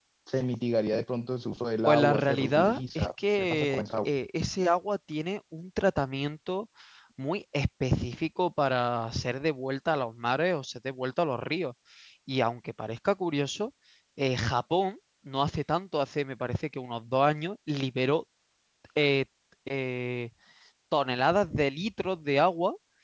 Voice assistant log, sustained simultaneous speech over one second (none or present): present